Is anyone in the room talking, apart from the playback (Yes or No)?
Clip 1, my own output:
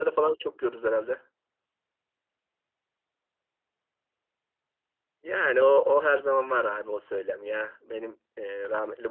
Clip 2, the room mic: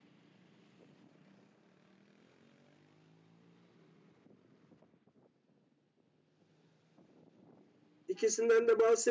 Yes